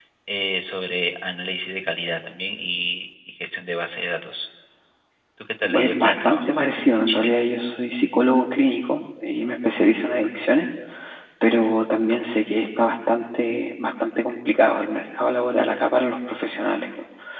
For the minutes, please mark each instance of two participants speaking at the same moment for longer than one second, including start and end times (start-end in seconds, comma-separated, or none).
5.7-7.3